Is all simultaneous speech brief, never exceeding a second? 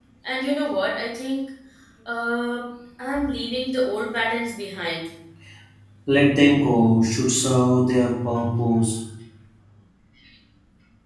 Yes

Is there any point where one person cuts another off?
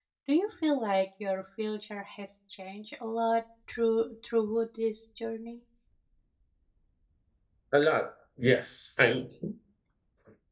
No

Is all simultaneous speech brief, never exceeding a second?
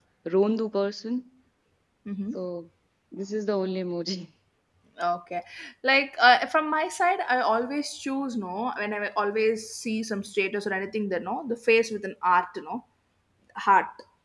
Yes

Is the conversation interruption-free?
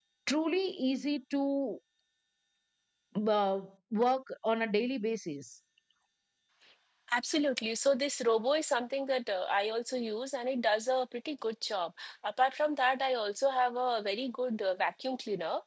Yes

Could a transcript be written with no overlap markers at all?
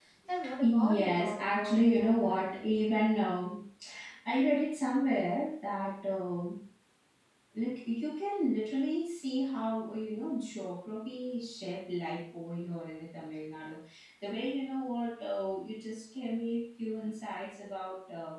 No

